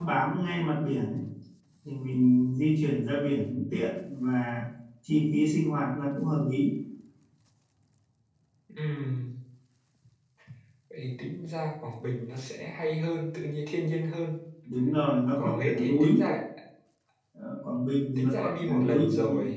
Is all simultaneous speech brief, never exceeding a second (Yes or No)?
No